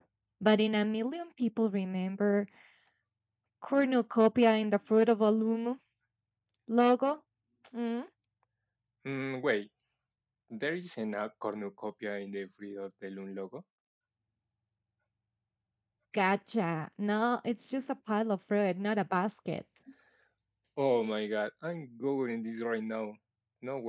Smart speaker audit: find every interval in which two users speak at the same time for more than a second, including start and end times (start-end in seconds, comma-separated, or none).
none